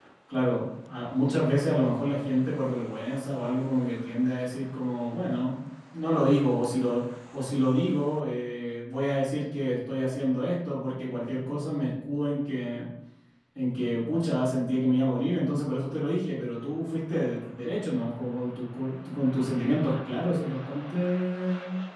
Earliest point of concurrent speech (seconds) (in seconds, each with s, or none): none